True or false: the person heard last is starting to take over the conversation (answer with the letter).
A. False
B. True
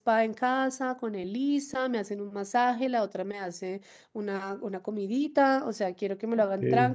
A